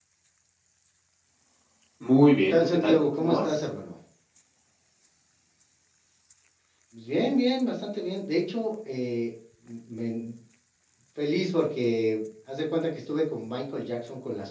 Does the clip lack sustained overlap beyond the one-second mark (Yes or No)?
No